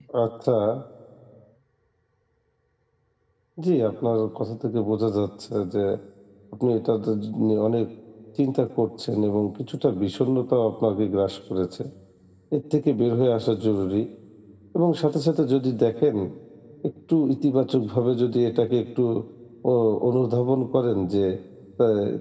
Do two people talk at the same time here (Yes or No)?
No